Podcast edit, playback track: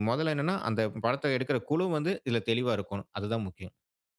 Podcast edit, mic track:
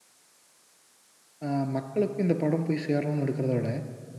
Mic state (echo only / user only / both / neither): user only